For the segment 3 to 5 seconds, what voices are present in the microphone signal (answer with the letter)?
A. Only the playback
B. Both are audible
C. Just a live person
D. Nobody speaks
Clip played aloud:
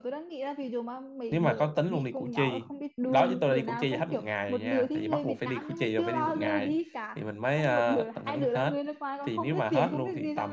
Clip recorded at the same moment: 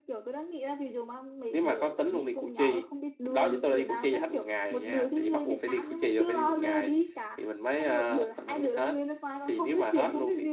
A